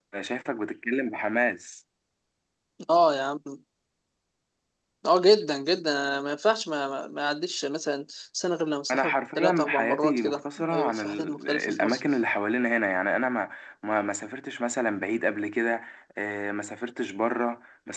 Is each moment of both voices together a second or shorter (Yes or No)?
No